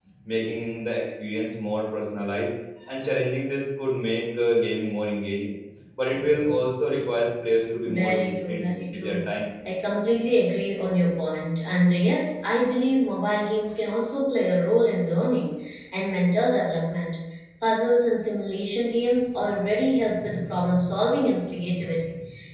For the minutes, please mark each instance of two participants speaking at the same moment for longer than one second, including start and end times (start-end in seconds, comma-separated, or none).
7.8-9.2